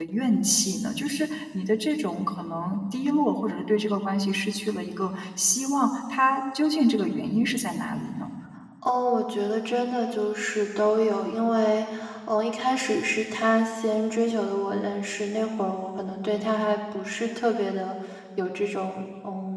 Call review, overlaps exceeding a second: none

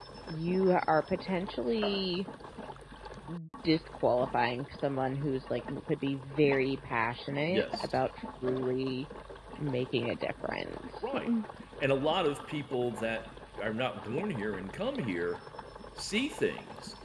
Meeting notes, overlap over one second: none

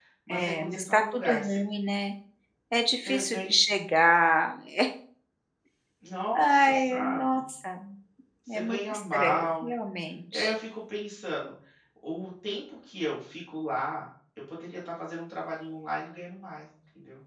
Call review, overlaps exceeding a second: present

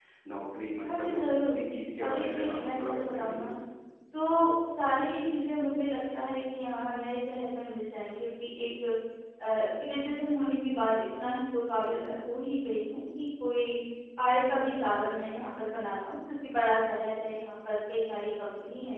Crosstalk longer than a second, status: present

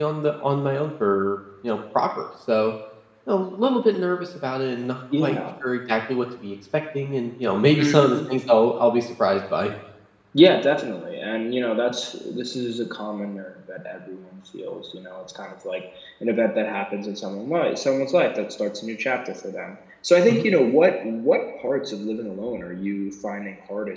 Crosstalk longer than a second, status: none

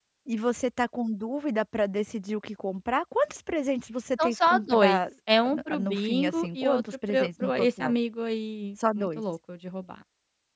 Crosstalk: present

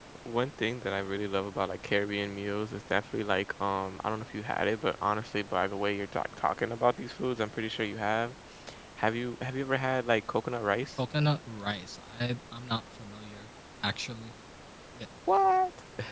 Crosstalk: none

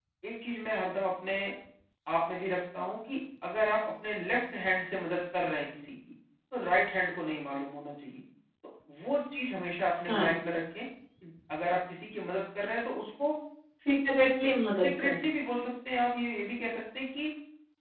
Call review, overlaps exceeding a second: none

